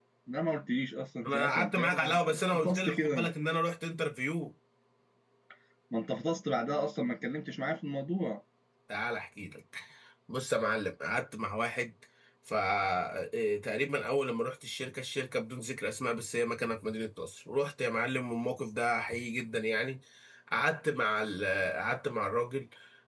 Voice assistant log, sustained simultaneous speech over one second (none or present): present